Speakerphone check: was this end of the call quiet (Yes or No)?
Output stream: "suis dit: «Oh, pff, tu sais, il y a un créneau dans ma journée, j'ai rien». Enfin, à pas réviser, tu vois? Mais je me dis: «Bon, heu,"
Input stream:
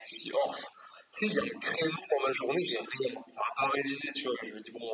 Yes